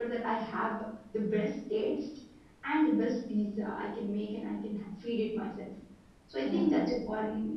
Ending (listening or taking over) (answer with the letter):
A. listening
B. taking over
A